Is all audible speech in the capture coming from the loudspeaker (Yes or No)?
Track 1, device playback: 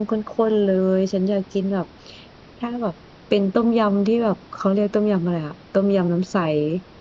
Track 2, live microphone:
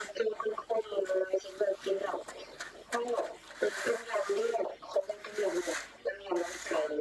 Yes